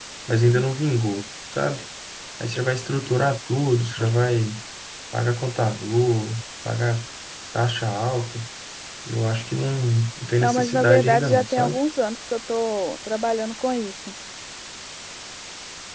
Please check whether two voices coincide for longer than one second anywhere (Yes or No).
Yes